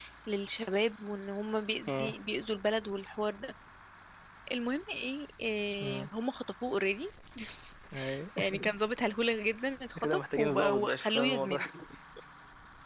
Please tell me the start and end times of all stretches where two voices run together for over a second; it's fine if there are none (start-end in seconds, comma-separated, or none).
10.0-11.6